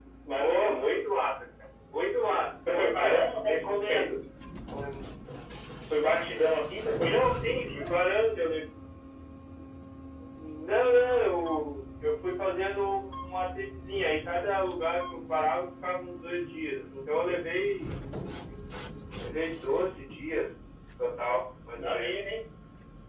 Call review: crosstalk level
present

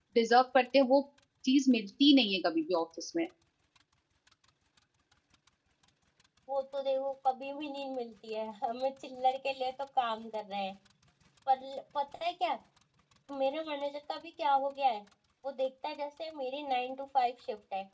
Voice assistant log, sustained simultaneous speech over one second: none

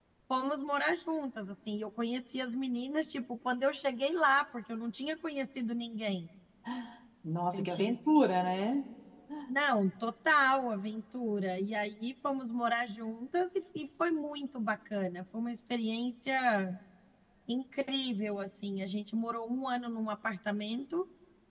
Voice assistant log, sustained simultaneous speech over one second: none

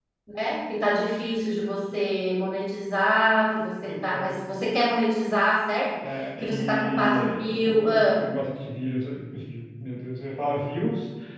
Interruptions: present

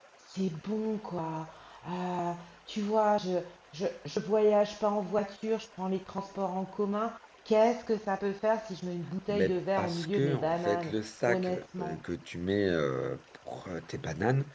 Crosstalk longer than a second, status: present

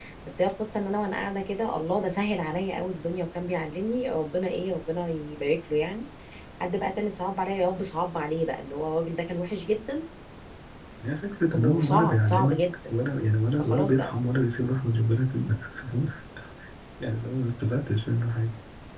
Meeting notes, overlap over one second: present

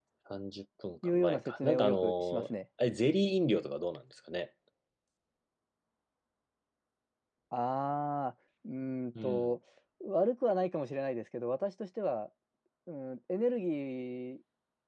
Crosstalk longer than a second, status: present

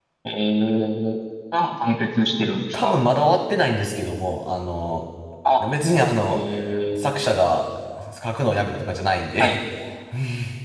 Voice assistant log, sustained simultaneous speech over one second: none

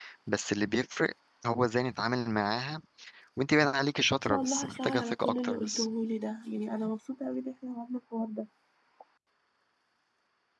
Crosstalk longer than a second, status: present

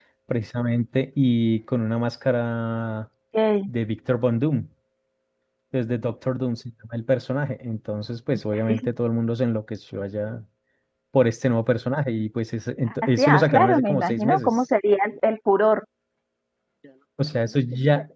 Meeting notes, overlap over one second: present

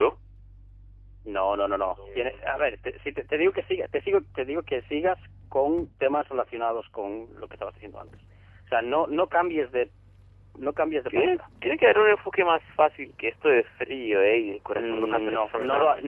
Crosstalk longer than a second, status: present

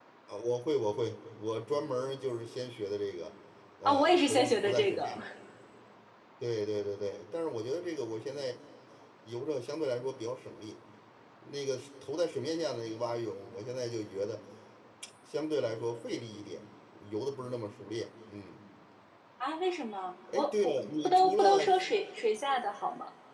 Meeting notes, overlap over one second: present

